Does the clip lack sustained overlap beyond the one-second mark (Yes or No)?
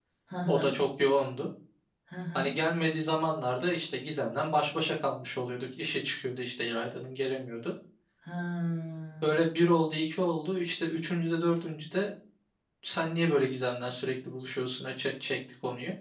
Yes